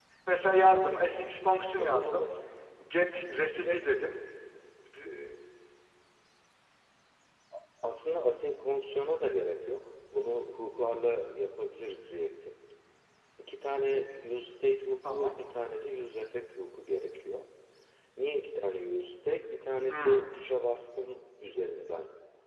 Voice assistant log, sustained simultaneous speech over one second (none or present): none